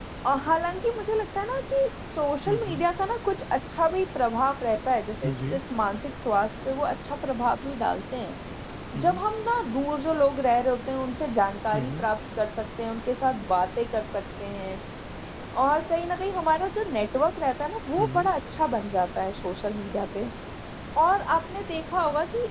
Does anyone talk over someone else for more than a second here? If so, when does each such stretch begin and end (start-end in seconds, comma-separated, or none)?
none